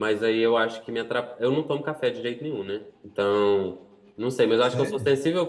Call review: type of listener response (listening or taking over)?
listening